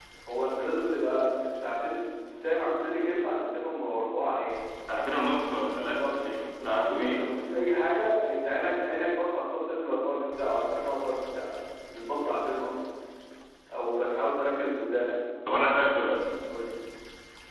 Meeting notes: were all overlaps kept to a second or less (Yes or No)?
Yes